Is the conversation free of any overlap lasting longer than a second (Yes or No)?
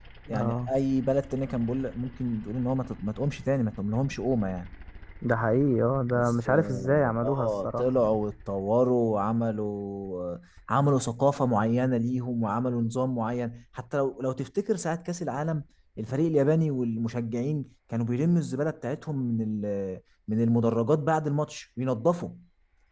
No